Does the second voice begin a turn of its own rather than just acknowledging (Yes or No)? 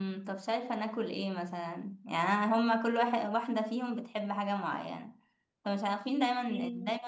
No